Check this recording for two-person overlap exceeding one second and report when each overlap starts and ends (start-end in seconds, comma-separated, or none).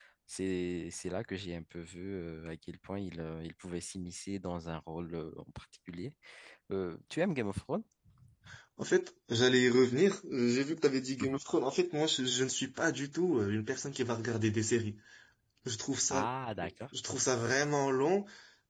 none